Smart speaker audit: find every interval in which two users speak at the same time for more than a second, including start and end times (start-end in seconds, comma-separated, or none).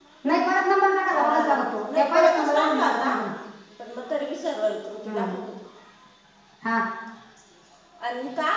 1.1-3.1